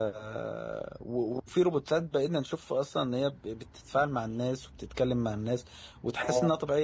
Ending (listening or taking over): listening